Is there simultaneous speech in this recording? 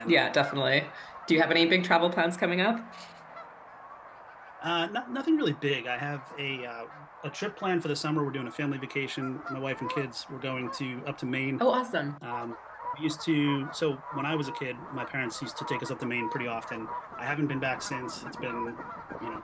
No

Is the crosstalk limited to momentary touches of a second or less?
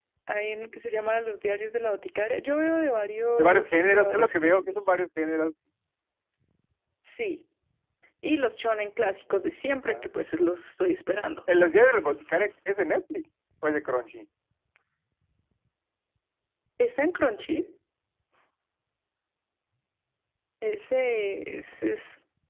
No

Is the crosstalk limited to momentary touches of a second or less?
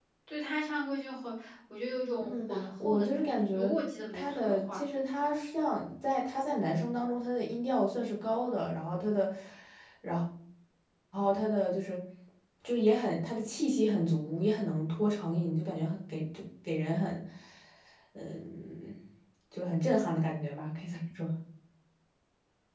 No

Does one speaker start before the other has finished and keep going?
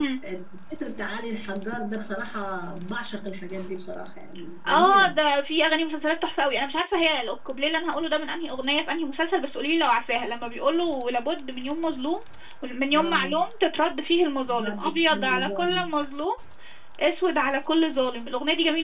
Yes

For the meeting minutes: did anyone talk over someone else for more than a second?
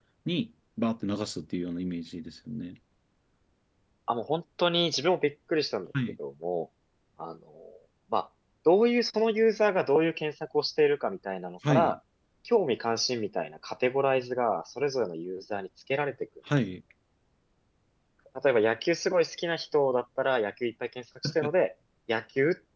No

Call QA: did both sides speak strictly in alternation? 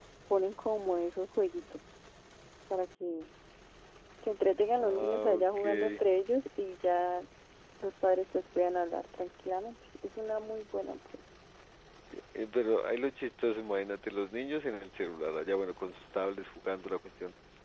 No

